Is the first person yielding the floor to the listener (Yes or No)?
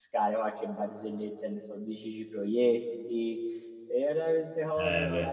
No